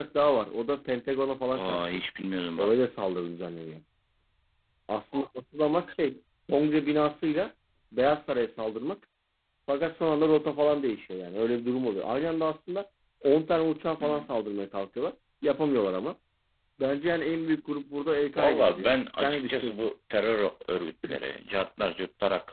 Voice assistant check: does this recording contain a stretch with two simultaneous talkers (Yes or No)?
Yes